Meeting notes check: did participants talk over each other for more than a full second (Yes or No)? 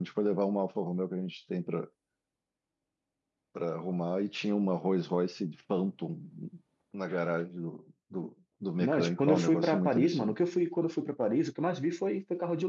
Yes